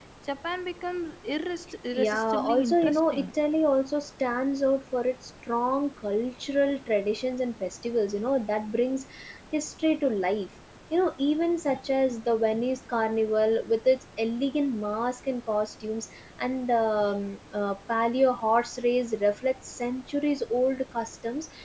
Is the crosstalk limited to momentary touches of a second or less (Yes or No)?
No